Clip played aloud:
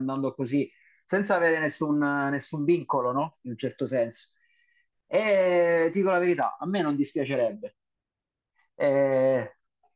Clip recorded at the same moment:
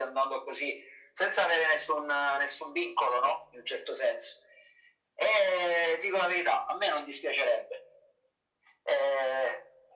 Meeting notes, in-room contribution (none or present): none